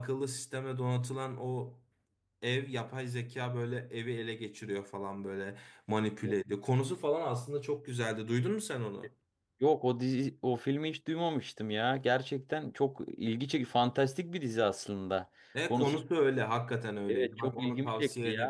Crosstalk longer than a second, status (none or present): present